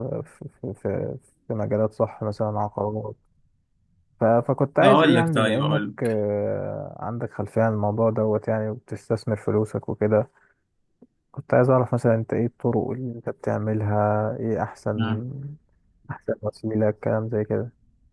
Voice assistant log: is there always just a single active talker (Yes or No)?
No